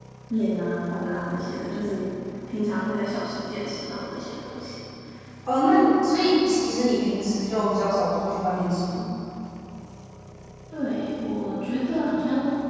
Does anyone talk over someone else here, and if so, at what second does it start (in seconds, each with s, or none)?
none